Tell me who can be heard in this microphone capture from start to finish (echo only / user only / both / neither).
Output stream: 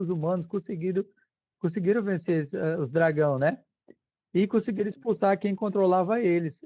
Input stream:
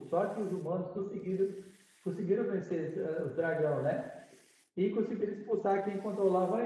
echo only